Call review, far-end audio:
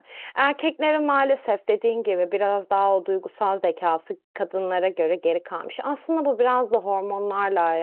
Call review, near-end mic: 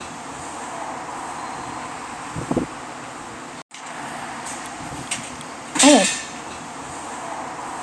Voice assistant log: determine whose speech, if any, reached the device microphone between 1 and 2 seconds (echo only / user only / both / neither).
neither